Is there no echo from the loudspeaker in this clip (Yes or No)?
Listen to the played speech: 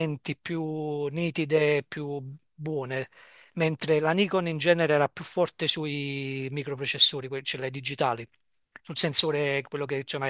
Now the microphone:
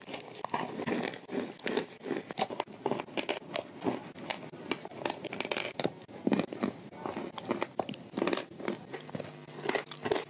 Yes